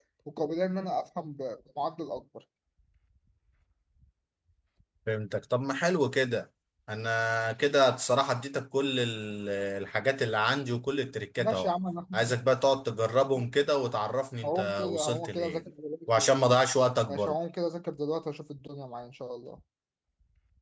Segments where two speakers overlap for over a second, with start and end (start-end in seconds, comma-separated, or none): 14.4-15.6